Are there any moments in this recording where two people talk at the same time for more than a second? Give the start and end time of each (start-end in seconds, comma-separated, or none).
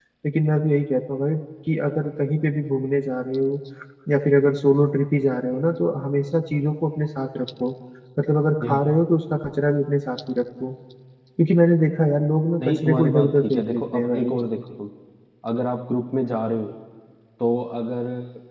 12.6-14.3